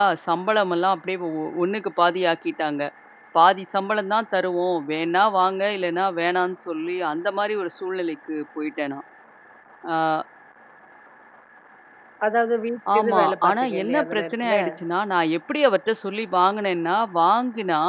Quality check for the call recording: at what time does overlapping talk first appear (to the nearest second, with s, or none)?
13 s